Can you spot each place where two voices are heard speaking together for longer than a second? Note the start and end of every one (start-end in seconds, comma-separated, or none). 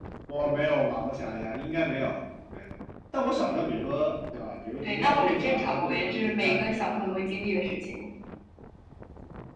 4.8-7.1